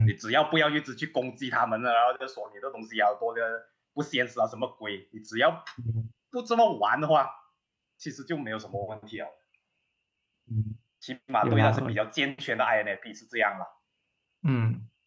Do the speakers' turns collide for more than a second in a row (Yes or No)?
No